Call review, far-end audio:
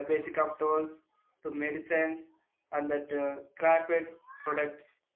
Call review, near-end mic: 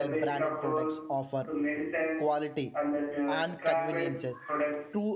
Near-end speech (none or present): present